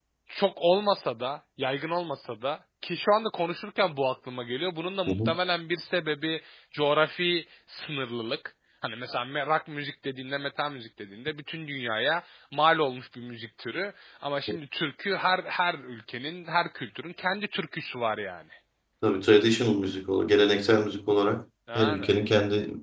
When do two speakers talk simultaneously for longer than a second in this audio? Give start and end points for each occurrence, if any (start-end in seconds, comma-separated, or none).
none